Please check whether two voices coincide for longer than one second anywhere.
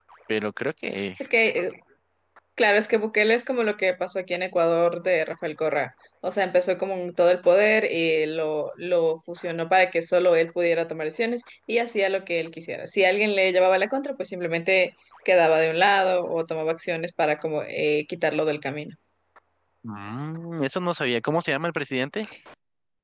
No

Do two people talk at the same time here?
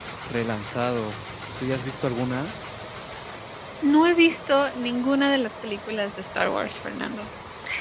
No

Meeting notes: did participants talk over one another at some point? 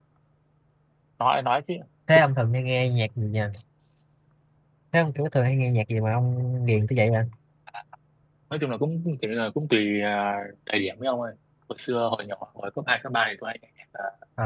No

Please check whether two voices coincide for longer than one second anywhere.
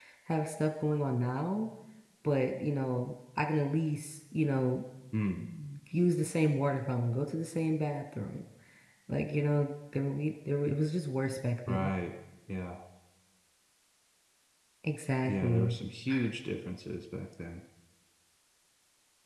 No

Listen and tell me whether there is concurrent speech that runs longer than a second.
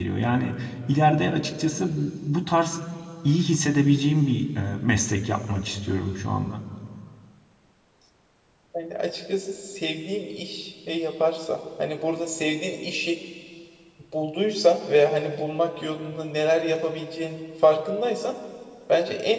No

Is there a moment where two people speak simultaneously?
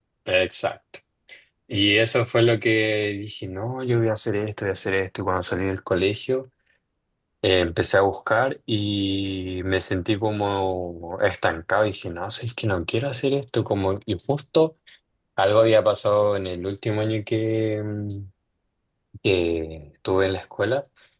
No

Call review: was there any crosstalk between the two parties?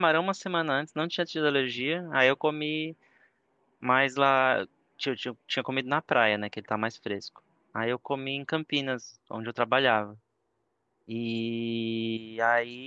No

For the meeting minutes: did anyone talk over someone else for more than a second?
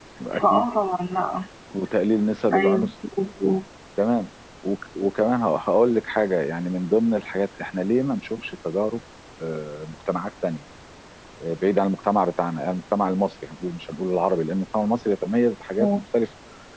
No

